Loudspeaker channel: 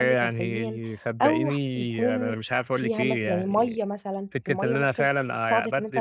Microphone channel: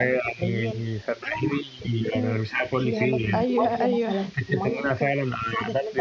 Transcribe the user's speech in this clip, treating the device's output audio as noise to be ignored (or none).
أيوه، أيوه.